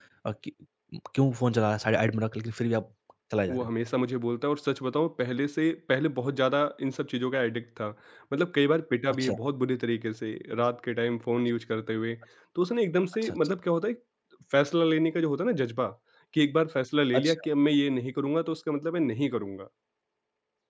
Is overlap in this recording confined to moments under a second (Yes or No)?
Yes